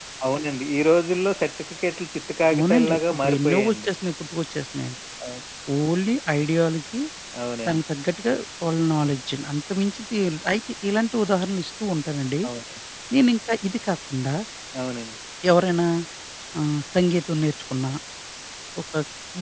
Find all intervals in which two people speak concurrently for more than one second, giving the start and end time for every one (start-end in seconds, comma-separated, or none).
2.5-3.9